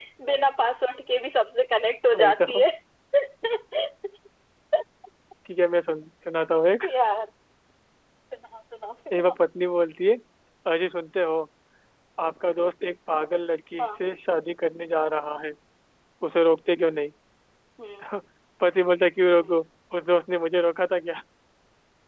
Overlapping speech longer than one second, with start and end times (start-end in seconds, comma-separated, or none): none